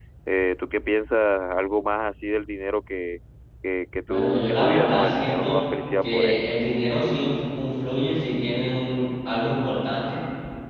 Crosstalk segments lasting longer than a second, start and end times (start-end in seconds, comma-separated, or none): 4.1-5.6